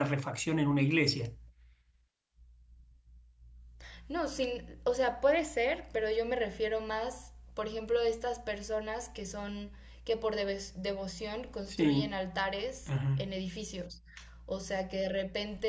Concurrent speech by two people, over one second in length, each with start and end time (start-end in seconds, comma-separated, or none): none